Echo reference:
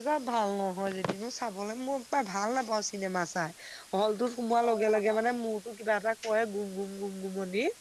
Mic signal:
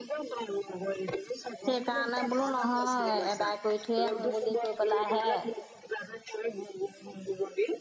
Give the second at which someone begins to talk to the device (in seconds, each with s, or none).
1.6 s